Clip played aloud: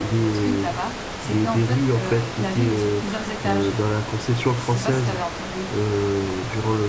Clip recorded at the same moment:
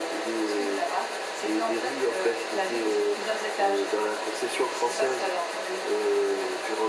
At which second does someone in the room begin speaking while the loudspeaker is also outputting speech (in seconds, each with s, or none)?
none